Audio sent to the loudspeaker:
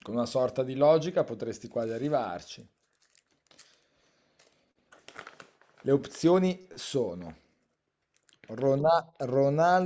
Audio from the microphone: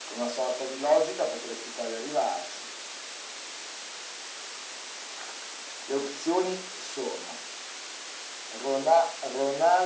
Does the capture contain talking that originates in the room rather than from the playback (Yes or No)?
No